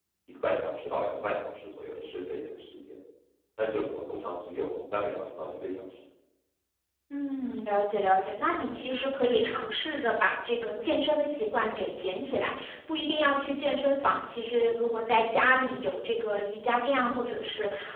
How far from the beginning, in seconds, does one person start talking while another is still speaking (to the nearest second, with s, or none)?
none